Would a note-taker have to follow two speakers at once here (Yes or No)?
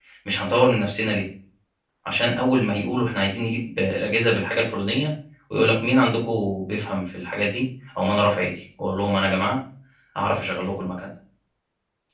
No